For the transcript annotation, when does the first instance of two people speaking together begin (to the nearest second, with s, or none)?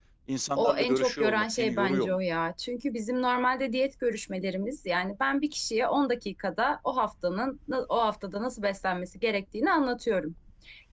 1 s